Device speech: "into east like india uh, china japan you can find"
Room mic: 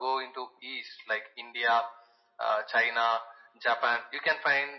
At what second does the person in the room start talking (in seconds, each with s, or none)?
none